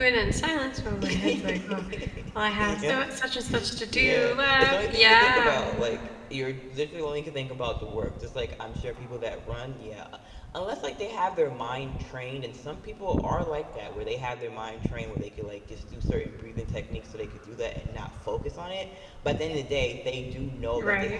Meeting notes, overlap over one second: present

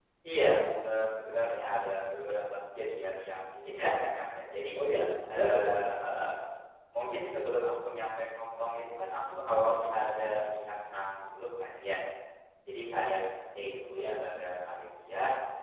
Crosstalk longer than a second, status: none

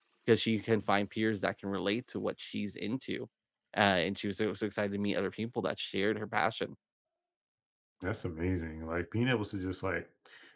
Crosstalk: none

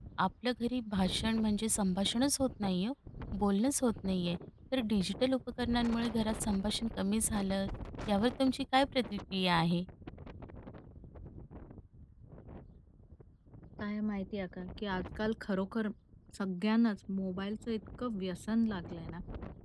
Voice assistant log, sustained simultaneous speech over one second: none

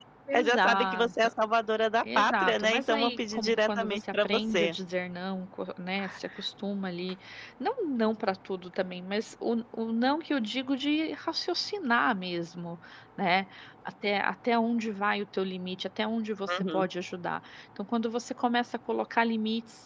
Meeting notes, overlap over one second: present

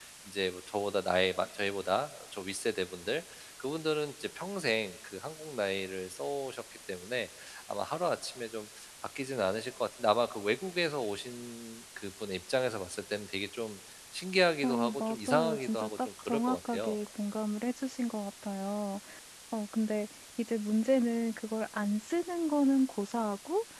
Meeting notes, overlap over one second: present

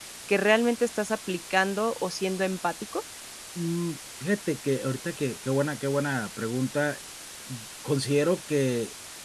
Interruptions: none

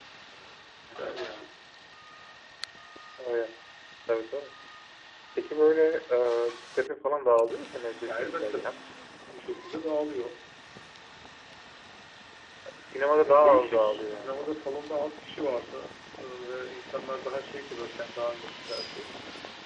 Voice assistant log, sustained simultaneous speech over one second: present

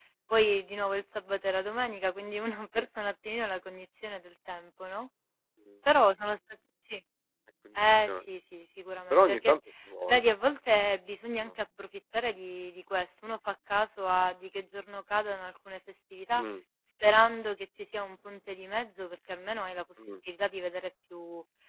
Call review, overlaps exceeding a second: none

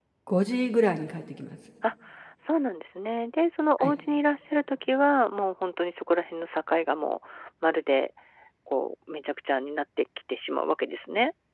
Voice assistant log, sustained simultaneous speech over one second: none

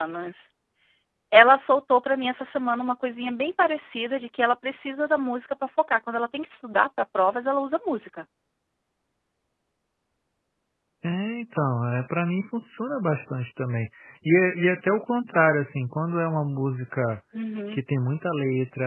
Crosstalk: none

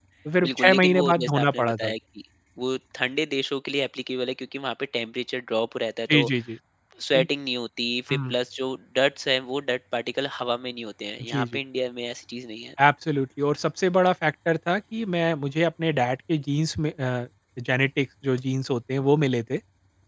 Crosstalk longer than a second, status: present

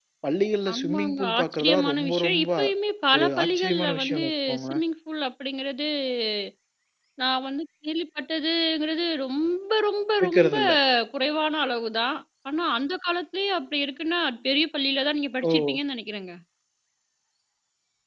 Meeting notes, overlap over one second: present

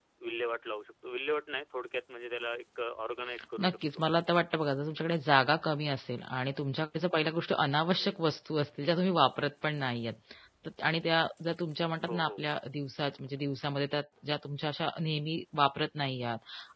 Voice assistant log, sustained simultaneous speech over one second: none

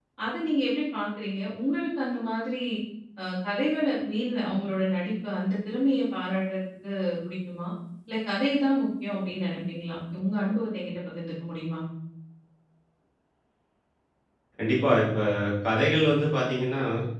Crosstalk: none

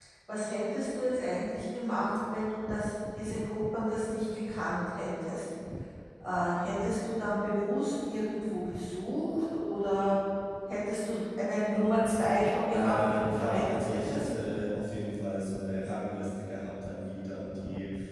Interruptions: present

